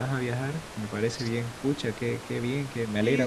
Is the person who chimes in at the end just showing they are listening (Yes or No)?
No